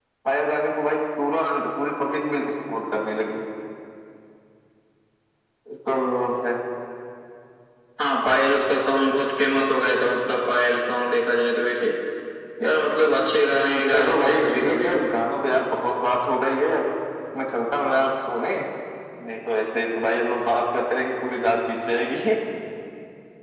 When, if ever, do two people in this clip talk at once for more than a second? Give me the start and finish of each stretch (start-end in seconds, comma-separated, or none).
13.5-15.0